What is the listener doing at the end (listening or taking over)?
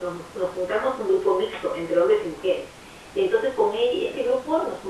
listening